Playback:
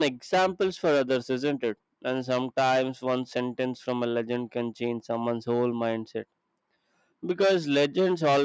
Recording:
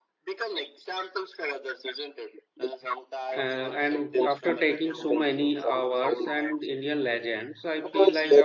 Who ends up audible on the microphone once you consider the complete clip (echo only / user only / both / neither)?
both